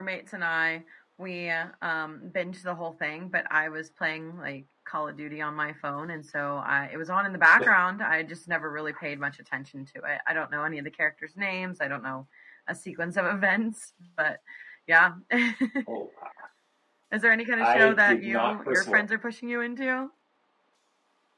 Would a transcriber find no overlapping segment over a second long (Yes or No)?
No